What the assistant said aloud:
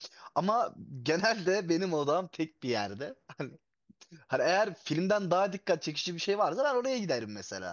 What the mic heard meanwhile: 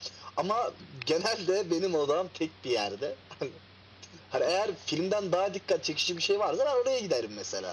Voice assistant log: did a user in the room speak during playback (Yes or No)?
No